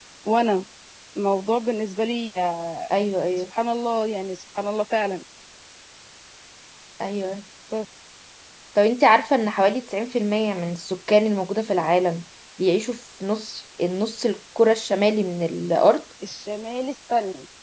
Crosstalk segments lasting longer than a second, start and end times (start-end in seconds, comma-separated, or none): none